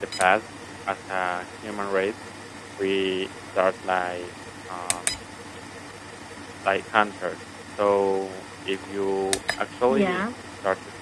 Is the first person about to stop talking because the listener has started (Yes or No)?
No